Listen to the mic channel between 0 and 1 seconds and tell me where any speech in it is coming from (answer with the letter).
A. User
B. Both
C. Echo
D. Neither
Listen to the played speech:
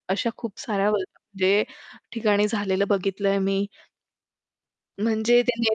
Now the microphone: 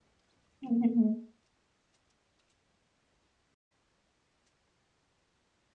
A